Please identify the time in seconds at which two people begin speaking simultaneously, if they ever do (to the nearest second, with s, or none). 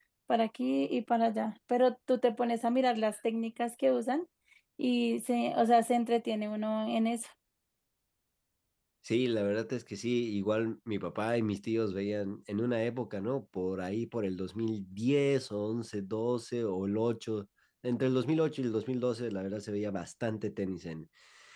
none